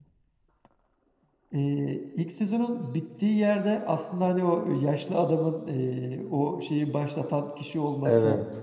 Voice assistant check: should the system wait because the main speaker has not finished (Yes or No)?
Yes